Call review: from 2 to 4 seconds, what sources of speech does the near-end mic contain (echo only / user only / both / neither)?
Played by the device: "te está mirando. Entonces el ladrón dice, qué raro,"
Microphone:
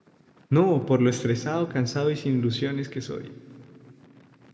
user only